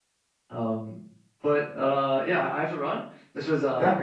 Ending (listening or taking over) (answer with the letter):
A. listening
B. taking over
A